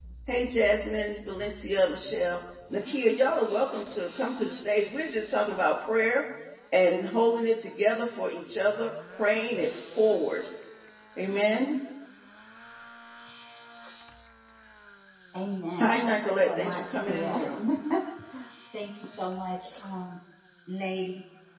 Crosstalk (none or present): present